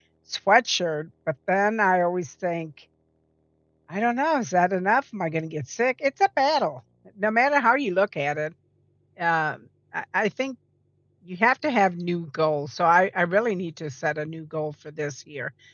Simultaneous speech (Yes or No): No